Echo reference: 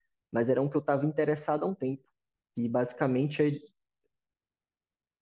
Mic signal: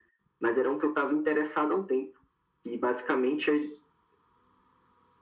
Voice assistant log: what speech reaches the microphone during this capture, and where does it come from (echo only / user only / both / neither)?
echo only